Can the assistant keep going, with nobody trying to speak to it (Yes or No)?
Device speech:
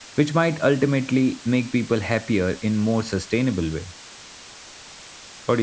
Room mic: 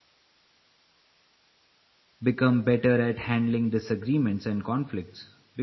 No